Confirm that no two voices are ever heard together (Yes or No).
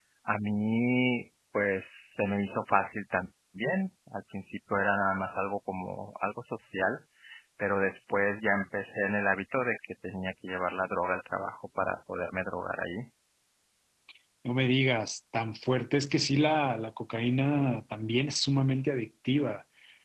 Yes